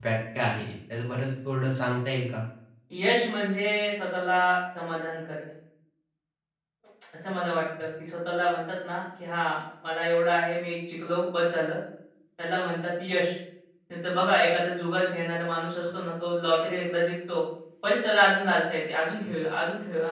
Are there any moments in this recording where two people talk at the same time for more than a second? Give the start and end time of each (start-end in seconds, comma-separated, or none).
none